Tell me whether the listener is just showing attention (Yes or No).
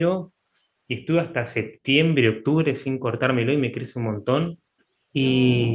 Yes